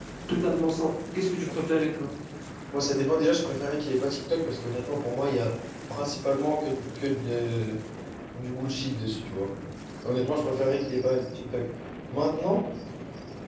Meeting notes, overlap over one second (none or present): none